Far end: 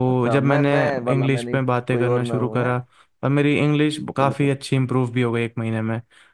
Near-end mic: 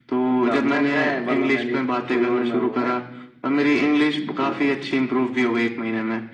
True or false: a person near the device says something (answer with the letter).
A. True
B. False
B